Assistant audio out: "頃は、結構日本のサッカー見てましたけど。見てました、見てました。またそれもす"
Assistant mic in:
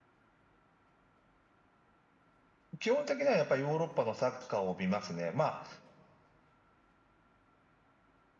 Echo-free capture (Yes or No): Yes